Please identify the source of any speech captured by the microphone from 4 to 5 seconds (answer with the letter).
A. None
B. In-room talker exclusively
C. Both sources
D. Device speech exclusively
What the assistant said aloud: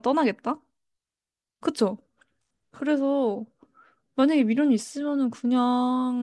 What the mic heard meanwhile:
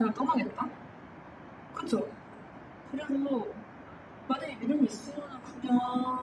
D